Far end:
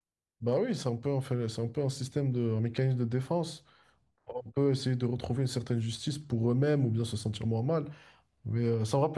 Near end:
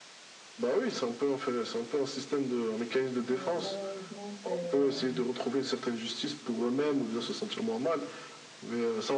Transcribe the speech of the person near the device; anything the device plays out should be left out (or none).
ouais, malheureusement, c'est... euh,